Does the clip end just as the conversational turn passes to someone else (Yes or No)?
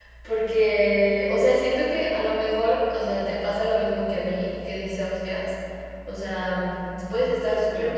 No